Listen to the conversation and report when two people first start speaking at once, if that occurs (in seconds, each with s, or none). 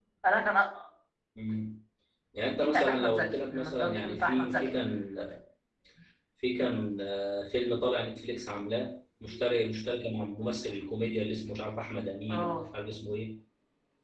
2.5 s